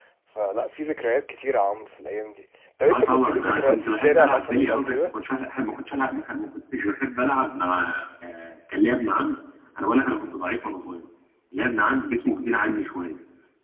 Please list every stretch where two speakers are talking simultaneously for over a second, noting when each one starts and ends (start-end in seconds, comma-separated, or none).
2.9-5.1